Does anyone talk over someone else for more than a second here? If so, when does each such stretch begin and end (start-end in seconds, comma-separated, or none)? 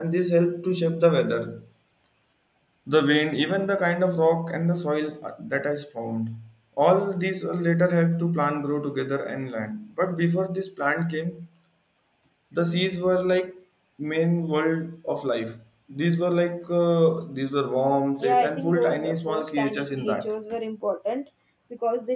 18.2-20.3